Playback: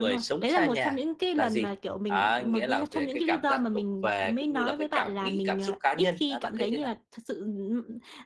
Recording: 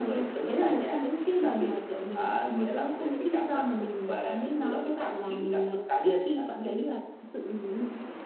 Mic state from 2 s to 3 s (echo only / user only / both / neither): echo only